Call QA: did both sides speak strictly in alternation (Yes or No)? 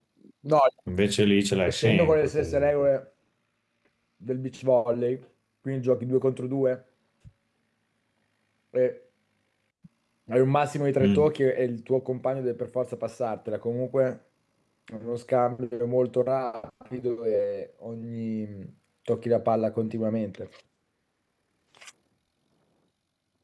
No